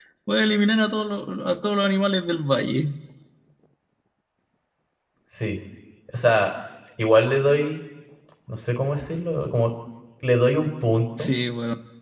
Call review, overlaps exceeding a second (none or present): none